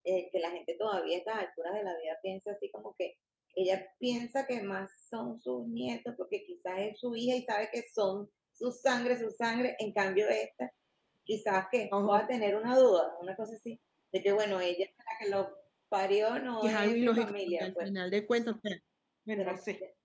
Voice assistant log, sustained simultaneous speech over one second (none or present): present